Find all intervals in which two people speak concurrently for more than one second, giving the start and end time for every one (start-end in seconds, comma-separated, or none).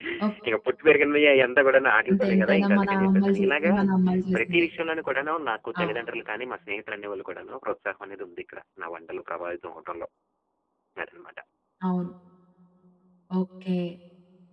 2.1-3.7